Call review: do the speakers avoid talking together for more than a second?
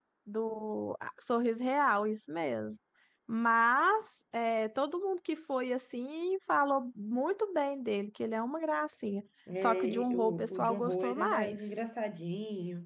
No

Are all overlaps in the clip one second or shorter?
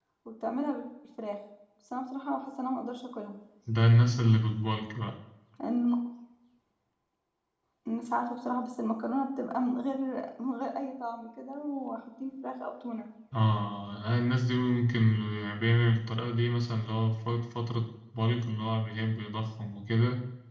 Yes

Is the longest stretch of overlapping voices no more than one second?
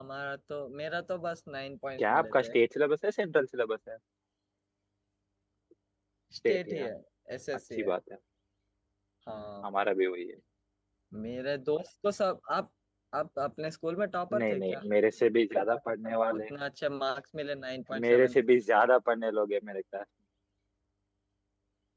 Yes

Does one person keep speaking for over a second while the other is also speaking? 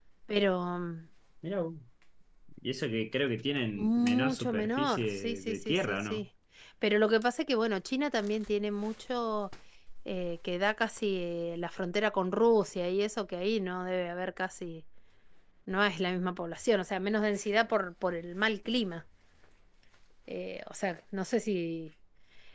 Yes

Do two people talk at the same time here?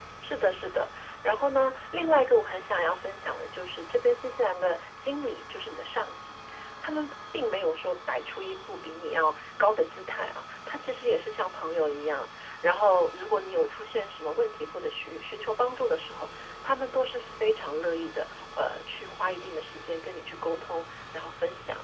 No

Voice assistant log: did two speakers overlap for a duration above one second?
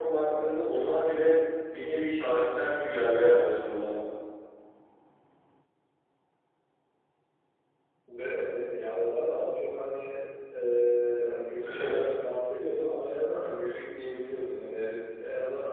No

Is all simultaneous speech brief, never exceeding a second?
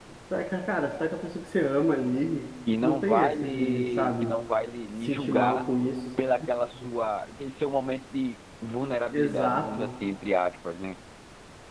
No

